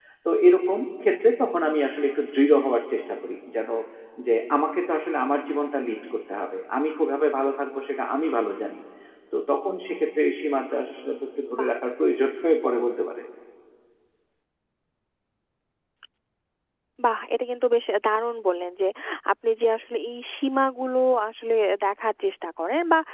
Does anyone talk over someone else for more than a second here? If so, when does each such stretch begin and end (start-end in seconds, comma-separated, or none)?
none